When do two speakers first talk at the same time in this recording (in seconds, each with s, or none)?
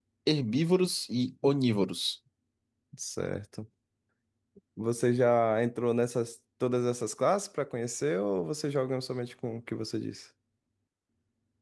none